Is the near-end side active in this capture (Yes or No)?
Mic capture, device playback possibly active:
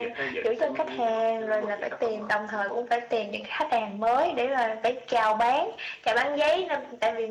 No